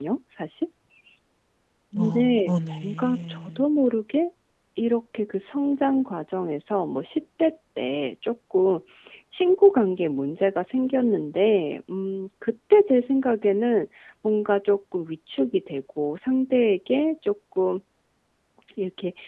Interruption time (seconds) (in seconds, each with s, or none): 2.0 s